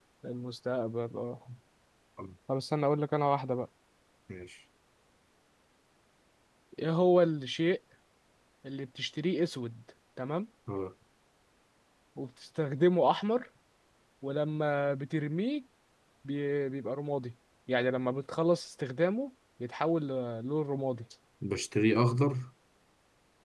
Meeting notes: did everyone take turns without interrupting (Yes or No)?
Yes